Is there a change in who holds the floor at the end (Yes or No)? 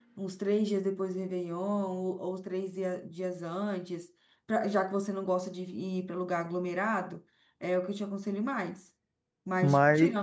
No